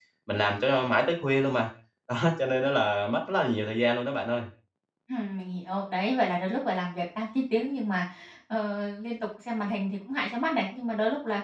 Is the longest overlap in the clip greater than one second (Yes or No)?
No